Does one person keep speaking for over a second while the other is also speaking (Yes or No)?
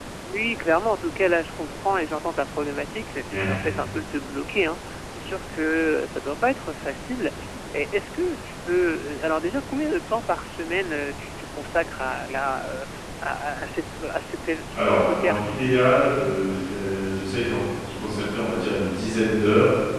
Yes